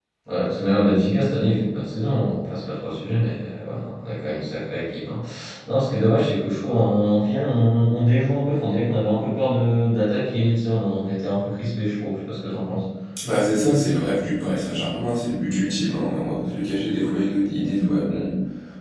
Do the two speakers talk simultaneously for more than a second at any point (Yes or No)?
No